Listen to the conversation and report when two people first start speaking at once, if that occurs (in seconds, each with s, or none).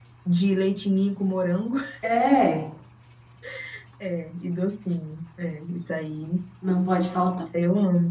none